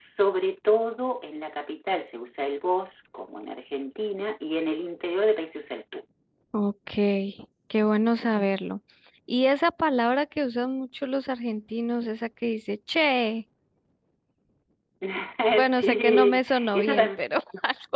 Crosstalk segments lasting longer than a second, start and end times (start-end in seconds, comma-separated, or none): 15.8-17.2